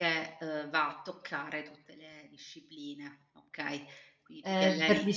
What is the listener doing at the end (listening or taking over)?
taking over